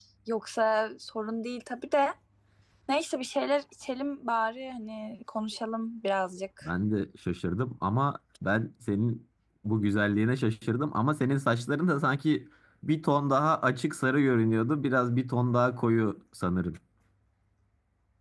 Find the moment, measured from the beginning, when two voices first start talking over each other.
none

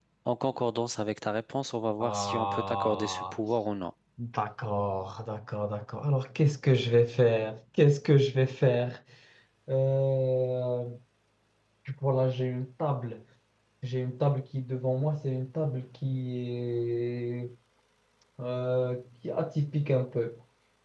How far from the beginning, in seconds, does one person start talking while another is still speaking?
2.0 s

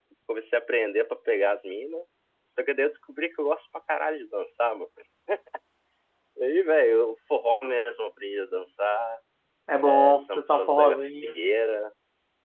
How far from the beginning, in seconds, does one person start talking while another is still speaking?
9.8 s

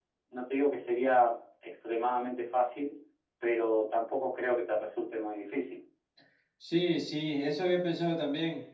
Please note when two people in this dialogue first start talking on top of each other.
none

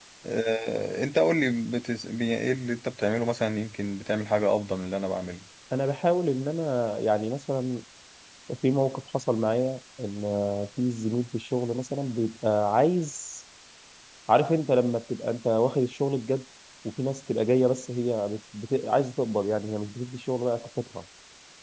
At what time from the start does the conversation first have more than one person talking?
none

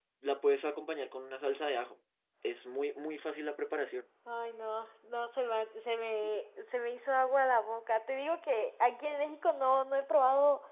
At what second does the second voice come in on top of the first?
none

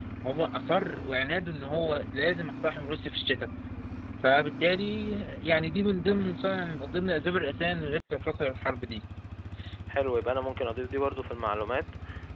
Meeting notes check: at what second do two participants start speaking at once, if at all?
none

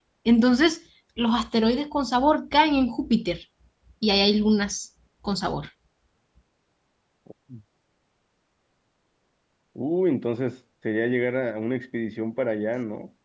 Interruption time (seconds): none

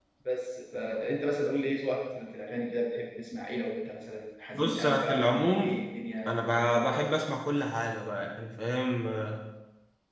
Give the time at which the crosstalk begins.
4.5 s

